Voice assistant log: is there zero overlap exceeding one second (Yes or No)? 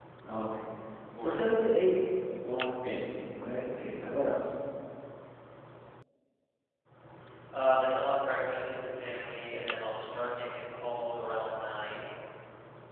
Yes